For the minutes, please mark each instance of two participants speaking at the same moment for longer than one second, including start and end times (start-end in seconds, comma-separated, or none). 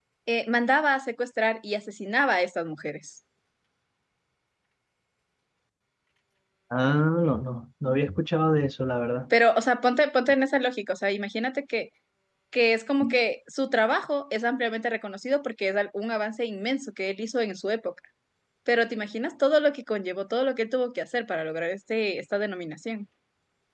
none